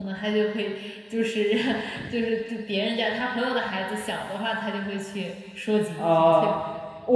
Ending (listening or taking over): taking over